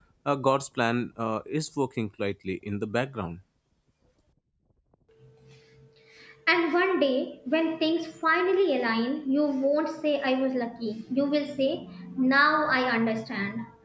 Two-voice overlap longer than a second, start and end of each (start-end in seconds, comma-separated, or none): none